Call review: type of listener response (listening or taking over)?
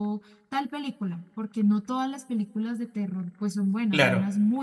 taking over